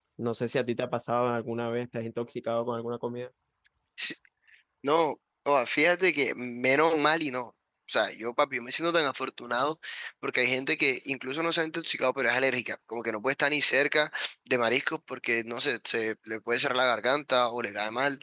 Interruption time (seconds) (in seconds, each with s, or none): none